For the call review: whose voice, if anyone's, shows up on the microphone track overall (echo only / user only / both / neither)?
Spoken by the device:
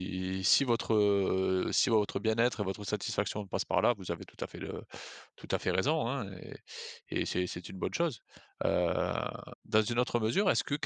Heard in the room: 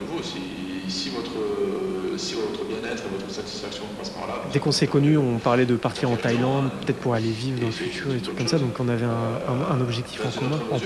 both